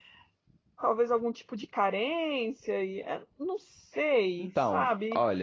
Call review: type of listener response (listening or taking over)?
taking over